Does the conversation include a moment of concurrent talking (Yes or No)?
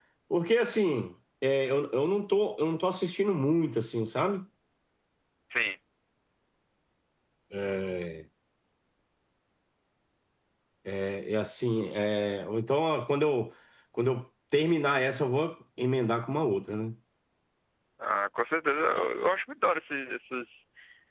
No